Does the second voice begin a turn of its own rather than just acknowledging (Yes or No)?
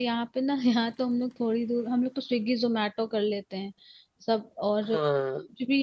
No